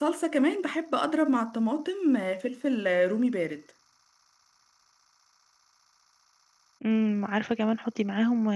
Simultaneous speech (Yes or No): No